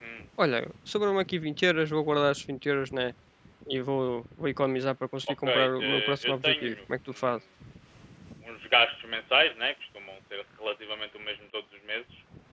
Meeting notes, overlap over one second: present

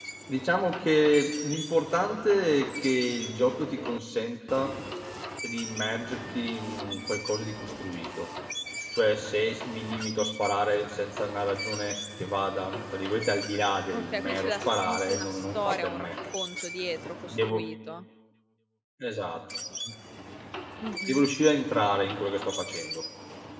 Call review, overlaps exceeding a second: present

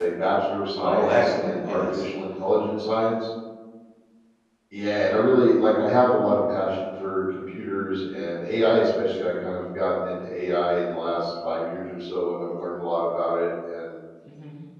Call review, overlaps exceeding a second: present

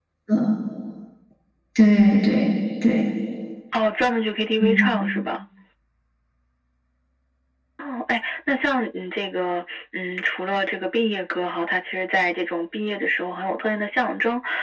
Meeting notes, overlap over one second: none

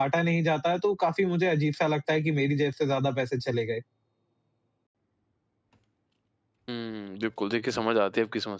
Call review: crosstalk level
none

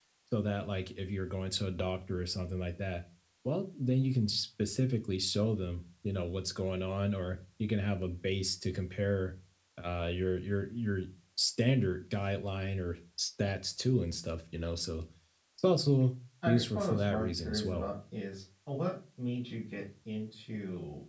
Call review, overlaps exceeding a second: present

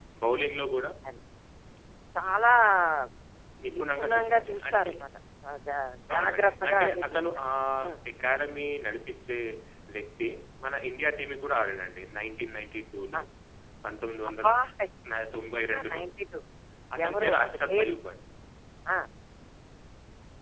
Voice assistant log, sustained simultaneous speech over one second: present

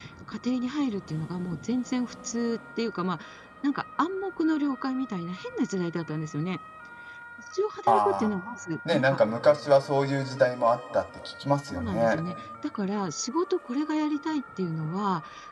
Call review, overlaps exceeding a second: none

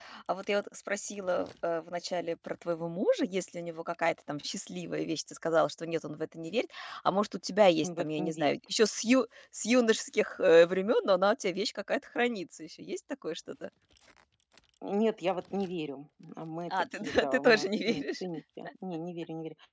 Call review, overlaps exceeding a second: present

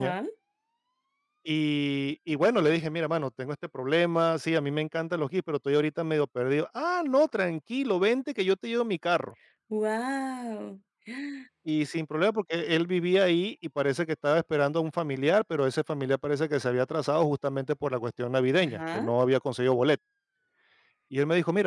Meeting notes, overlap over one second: none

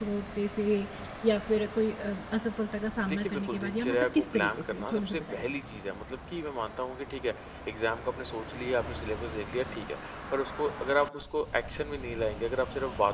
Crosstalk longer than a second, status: present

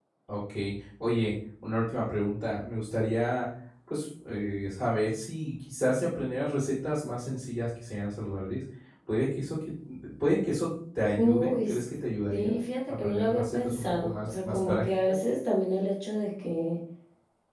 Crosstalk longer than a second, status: present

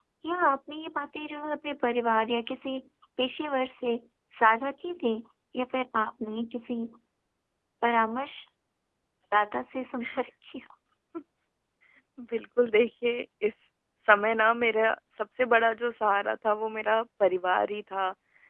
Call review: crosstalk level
none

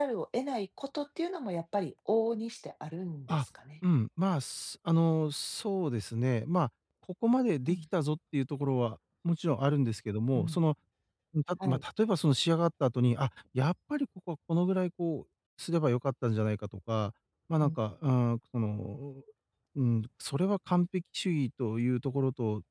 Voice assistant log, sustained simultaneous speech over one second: none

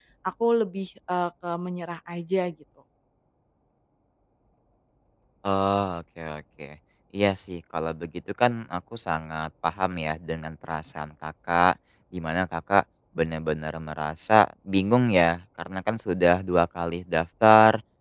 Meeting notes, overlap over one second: none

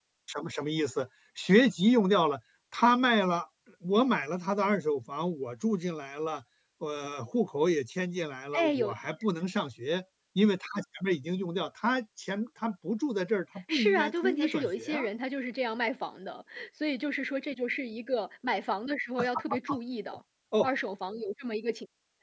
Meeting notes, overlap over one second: present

